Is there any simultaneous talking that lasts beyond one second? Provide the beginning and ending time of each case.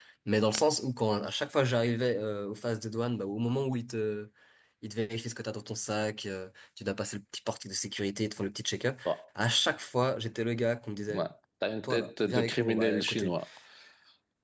11.8-13.3

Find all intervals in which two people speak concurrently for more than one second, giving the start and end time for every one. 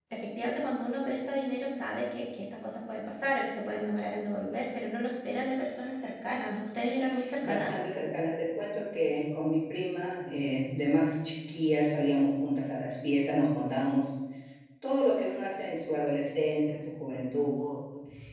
none

